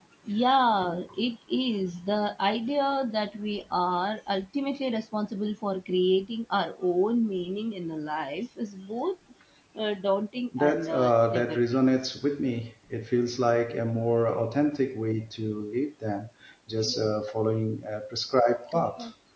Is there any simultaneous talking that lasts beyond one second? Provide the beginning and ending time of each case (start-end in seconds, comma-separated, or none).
10.6-11.8